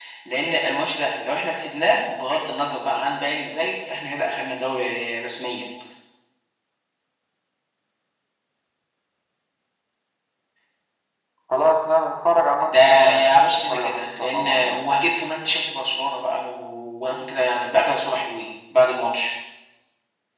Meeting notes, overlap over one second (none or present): present